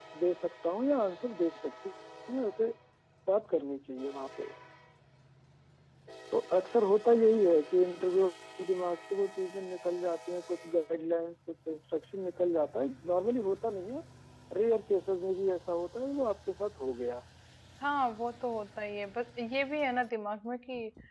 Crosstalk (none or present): none